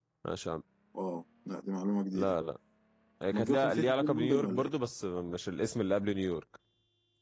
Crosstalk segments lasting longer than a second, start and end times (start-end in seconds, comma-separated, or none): 3.3-4.7